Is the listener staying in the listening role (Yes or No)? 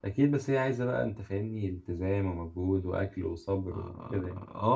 No